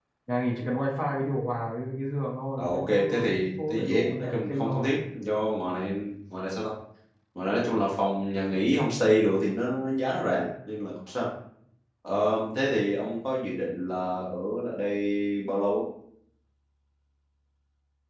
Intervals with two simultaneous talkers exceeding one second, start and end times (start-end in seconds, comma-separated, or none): 2.6-4.9